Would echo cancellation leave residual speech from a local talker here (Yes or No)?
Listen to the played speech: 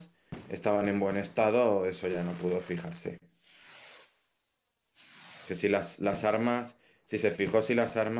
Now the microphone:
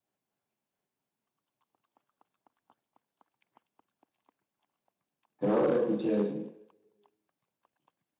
Yes